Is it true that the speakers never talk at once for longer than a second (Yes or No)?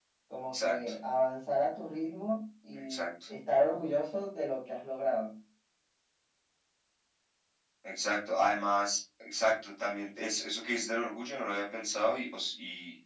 Yes